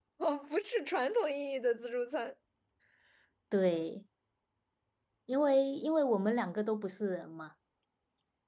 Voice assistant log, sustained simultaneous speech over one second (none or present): none